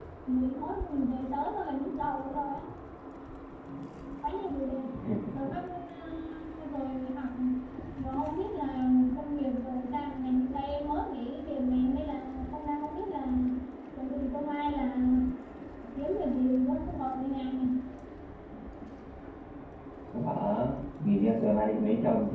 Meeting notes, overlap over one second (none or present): none